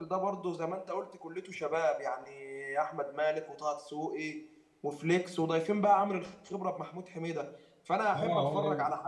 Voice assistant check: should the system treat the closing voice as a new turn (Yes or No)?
Yes